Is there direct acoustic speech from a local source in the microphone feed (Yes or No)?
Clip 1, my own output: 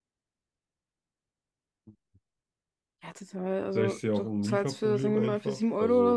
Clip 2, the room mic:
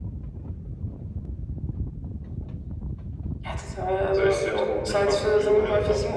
No